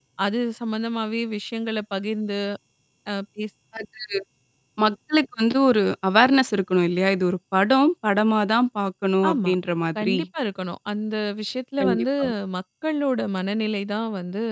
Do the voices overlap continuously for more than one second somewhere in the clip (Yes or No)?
No